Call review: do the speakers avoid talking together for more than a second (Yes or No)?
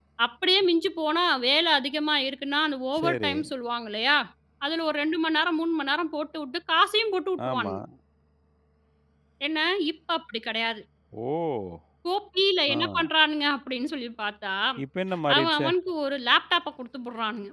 Yes